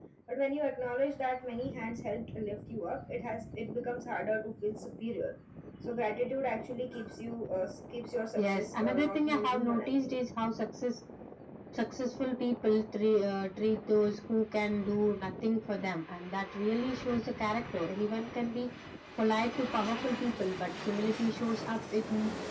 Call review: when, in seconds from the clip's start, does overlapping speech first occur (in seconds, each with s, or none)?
8.4 s